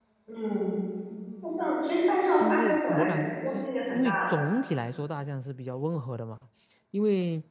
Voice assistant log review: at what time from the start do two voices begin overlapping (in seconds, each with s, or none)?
2.4 s